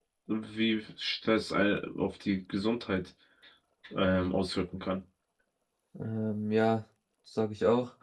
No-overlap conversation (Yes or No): Yes